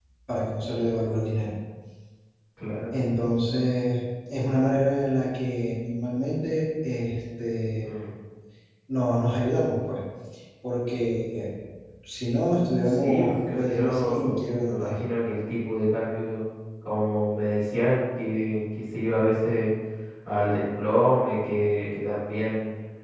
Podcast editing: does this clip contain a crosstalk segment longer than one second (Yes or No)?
Yes